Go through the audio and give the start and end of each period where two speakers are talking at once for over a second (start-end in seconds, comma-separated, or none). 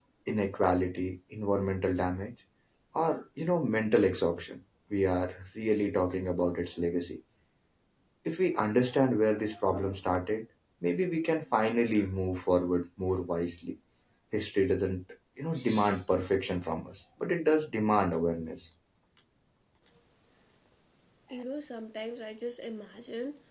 none